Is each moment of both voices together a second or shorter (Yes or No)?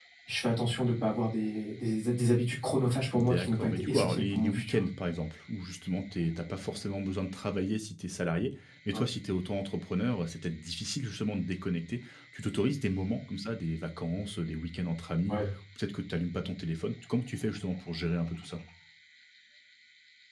No